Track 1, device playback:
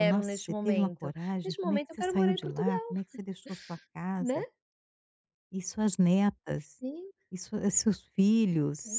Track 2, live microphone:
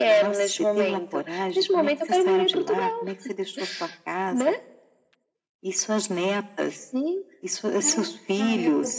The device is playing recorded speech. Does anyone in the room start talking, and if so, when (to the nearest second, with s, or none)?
8 s